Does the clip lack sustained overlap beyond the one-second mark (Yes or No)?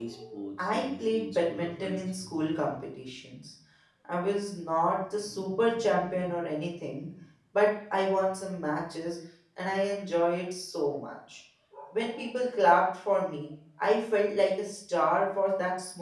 No